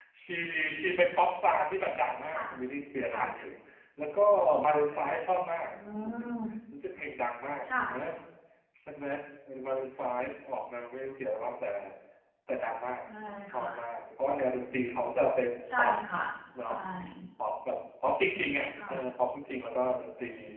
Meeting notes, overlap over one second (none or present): none